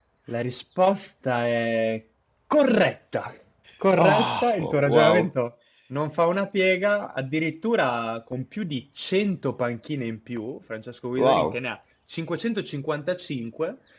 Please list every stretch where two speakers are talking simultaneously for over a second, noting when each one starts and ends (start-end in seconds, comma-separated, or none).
4.0-5.3